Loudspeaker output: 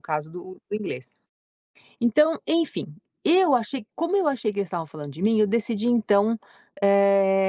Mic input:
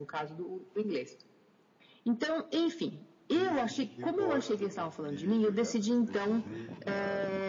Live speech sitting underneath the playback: Yes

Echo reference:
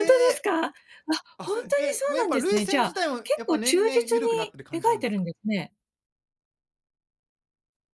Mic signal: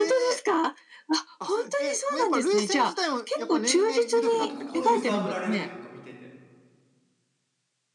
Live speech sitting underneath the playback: Yes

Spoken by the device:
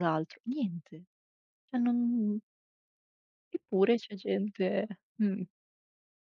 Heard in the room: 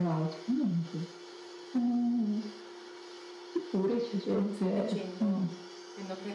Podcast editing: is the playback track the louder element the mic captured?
Yes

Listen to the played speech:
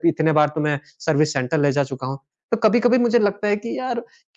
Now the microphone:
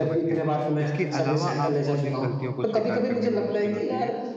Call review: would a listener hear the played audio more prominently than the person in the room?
Yes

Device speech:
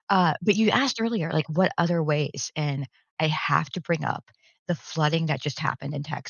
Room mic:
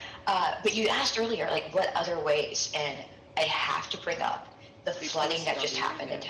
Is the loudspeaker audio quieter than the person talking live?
No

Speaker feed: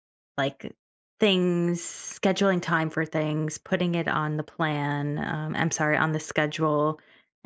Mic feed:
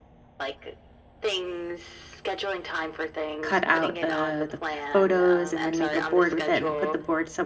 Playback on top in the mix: No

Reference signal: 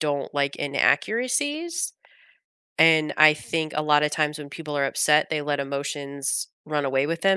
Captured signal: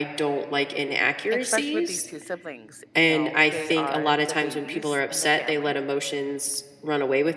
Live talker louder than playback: No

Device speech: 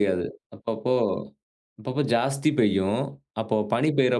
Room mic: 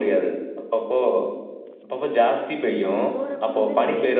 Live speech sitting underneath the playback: Yes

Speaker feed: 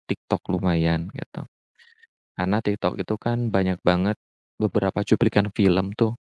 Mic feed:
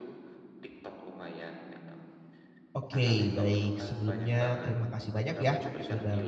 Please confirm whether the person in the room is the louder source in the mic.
Yes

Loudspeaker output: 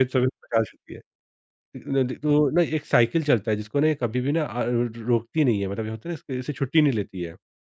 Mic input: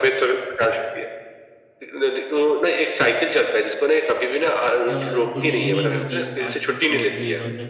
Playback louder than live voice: Yes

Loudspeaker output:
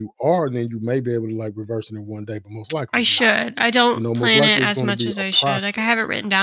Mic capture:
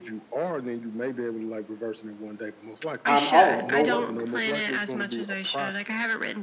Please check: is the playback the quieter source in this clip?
Yes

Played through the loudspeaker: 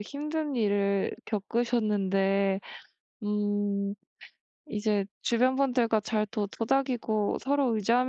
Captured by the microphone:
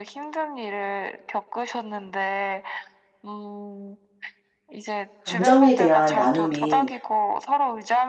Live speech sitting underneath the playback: No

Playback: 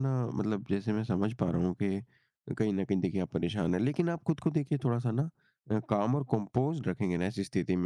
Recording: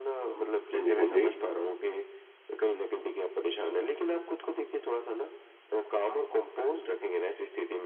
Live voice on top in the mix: Yes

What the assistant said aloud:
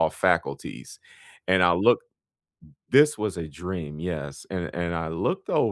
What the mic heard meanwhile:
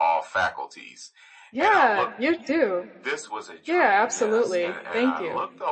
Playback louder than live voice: No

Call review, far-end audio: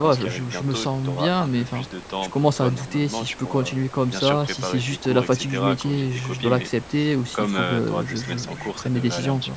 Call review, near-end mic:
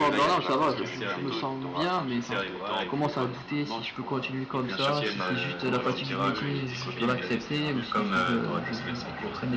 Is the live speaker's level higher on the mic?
No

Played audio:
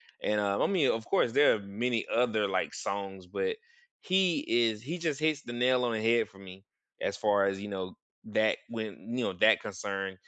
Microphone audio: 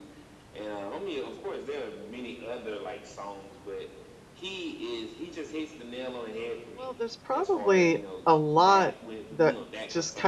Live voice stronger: Yes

